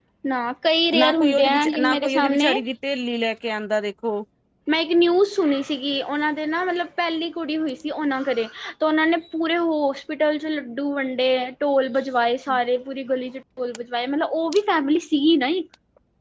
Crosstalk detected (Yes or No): Yes